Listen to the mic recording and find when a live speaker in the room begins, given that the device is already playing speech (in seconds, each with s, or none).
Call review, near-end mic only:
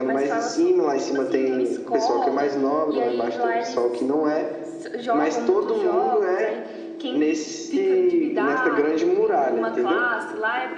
none